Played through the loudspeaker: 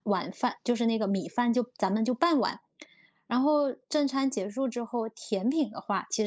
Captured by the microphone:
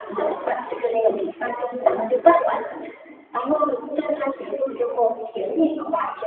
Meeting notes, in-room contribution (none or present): none